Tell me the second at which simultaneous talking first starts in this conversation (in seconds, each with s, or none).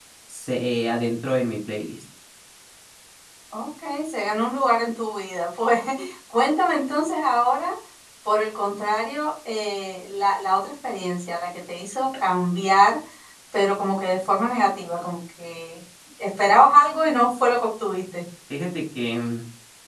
none